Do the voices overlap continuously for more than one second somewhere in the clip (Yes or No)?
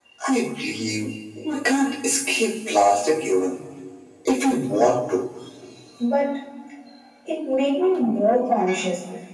No